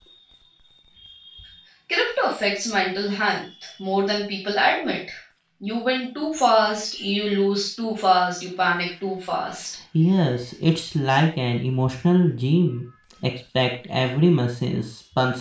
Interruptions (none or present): none